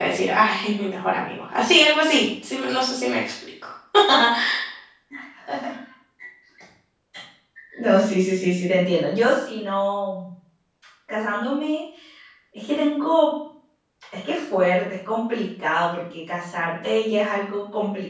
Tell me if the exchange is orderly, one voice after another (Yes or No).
Yes